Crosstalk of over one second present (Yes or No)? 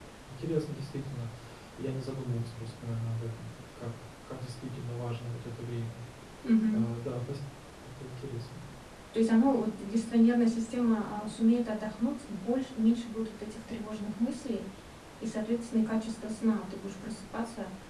No